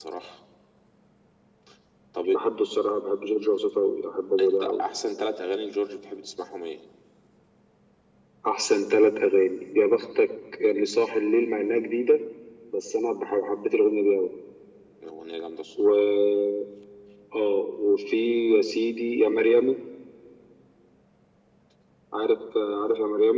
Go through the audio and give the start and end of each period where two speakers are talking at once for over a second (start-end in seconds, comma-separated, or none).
none